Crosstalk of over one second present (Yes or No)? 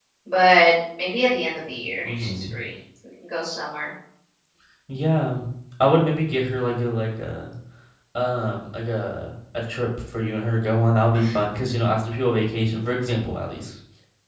No